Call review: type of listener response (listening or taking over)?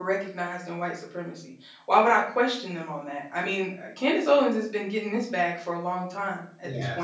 listening